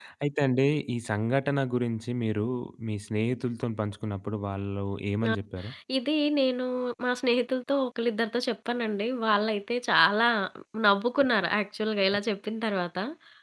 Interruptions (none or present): none